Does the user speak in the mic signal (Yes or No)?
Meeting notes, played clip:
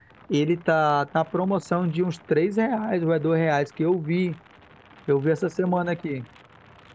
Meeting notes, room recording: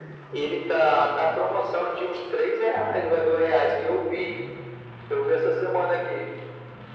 No